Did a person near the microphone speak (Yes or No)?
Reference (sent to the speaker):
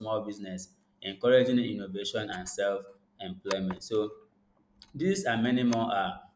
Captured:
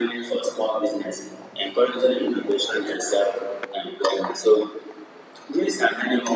No